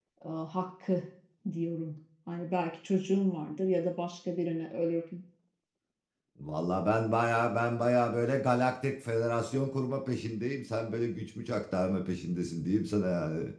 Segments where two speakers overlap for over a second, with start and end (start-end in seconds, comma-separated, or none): none